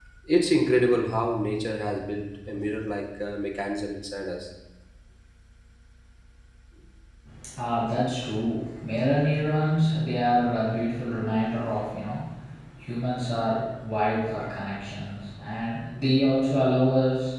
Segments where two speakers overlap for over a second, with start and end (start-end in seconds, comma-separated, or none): none